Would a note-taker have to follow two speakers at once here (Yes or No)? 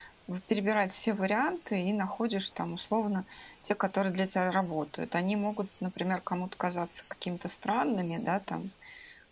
No